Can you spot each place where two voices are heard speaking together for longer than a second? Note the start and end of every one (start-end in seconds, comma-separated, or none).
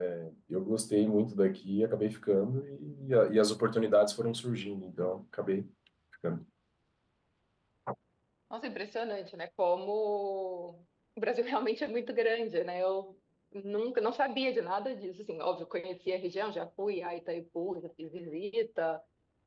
none